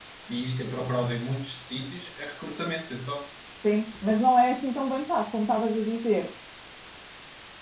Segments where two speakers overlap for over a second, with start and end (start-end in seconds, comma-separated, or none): none